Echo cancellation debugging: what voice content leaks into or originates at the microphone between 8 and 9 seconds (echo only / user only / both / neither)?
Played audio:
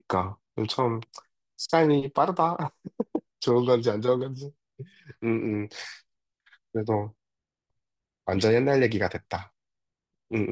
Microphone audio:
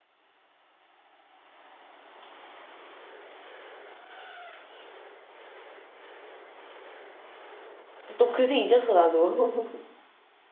user only